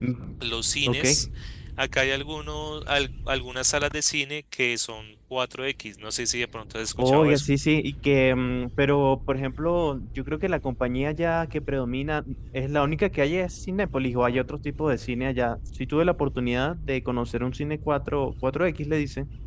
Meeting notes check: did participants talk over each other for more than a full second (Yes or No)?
No